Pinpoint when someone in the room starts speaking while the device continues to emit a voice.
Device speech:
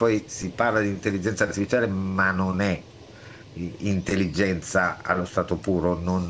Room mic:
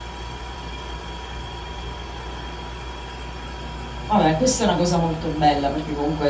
4.0 s

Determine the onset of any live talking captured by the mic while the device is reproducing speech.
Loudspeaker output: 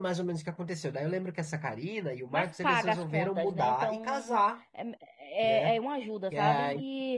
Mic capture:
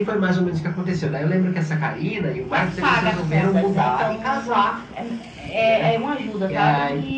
none

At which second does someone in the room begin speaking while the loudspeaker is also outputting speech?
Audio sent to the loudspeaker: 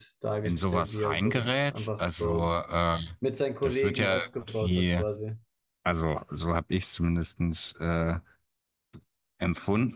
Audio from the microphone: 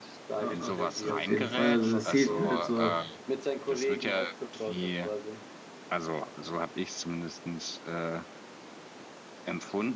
0.3 s

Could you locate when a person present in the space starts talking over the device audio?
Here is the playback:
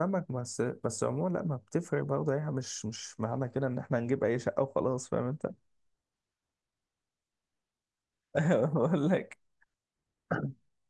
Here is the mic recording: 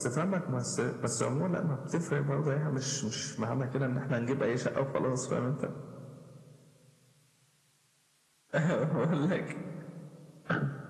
none

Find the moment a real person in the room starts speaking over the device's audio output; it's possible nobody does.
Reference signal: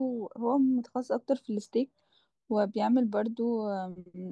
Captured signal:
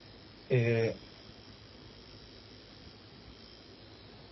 0.5 s

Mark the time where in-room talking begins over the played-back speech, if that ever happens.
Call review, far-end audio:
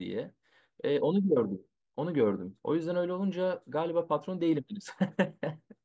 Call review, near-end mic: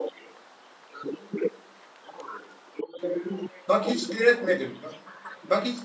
3.7 s

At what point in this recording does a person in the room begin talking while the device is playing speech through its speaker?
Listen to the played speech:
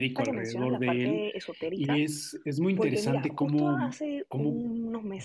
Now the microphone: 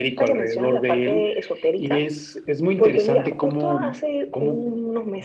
none

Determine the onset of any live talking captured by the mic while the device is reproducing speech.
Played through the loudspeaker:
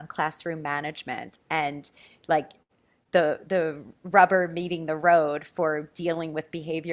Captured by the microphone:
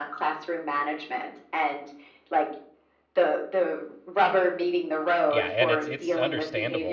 5.3 s

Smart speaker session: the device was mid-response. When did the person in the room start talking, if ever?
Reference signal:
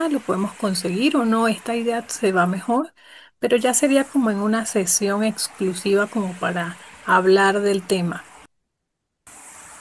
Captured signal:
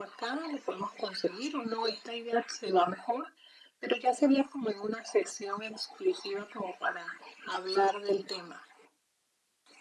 none

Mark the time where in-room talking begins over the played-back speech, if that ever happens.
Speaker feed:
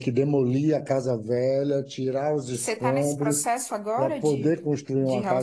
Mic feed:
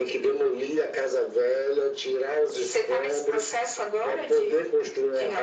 none

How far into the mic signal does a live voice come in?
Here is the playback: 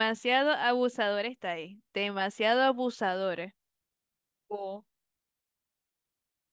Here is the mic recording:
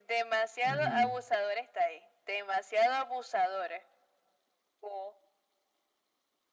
0.7 s

